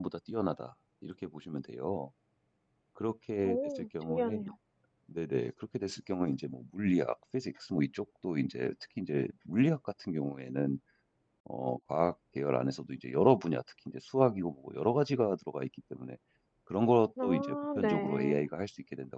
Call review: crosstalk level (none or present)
present